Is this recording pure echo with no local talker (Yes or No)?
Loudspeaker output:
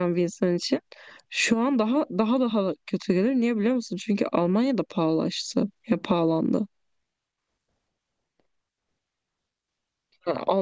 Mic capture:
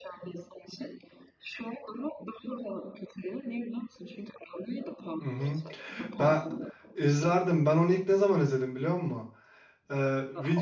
No